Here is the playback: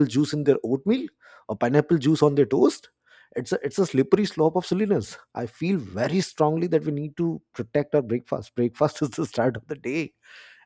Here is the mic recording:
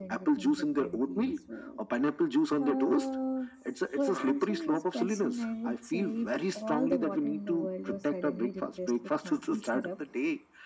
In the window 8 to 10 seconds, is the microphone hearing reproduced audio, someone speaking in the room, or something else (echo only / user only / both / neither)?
both